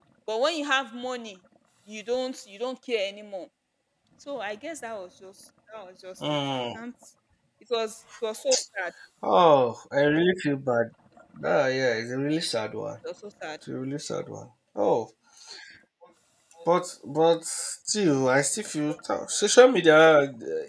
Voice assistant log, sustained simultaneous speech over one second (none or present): none